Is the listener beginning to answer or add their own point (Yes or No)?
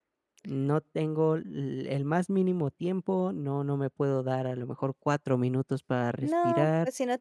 Yes